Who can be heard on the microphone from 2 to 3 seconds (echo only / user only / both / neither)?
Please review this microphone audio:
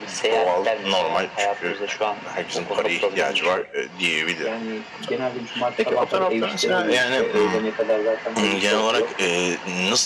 echo only